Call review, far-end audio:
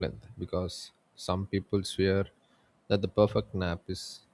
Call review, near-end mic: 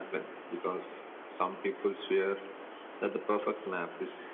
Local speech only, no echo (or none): none